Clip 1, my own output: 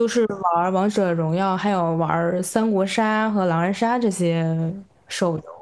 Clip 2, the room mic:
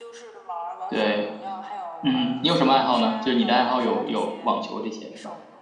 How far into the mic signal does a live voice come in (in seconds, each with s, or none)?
0.9 s